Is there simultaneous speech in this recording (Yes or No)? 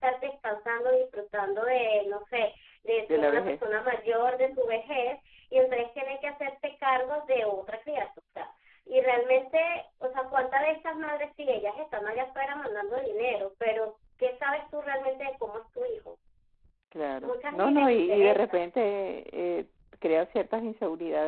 Yes